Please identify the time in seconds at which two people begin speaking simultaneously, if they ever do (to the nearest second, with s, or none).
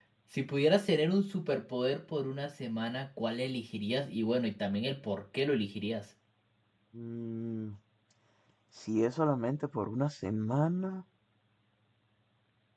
none